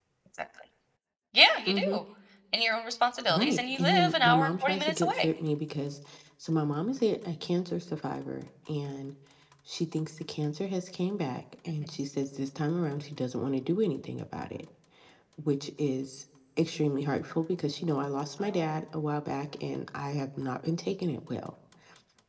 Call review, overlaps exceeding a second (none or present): present